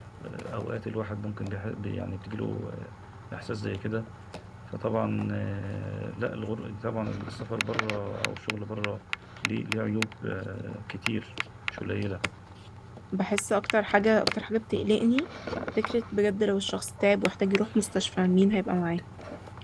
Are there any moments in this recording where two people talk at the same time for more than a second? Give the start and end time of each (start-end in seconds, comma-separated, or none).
none